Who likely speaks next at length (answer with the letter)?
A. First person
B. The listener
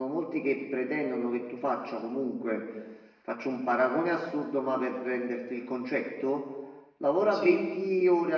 A